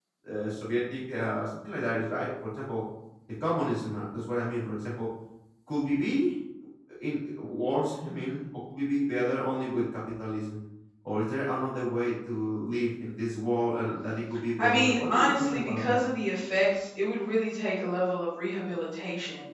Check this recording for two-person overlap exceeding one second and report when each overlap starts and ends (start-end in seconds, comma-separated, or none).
14.6-16.0